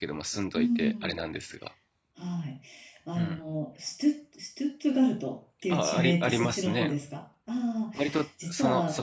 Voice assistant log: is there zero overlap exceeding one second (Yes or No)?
No